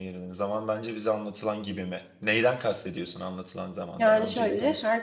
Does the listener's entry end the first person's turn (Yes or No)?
Yes